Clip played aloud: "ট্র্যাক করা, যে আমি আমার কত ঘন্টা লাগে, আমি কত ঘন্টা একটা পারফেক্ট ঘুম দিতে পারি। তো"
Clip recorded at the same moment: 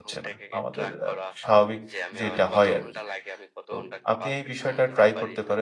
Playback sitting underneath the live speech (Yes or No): Yes